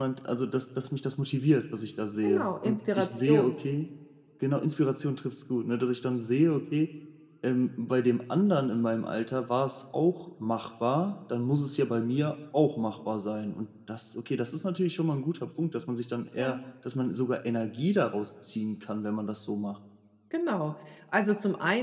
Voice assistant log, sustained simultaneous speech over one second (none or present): present